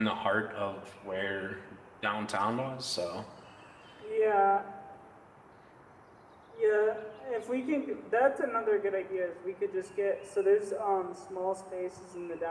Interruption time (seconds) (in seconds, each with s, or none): none